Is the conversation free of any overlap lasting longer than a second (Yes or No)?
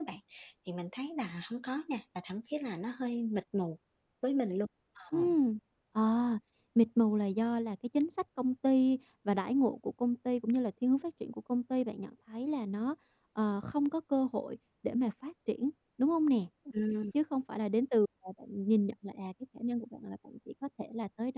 Yes